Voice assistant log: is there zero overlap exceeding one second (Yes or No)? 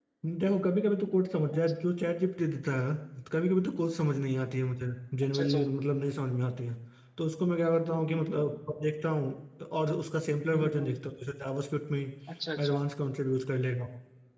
Yes